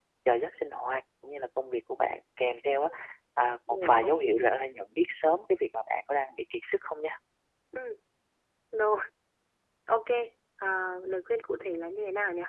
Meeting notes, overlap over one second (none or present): none